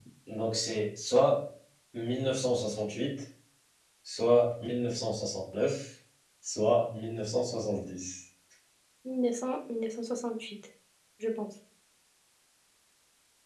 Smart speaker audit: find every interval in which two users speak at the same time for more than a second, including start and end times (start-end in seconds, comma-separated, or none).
none